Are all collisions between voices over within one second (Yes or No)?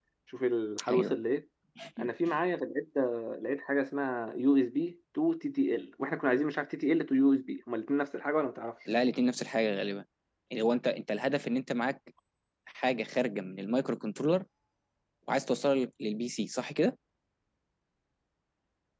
Yes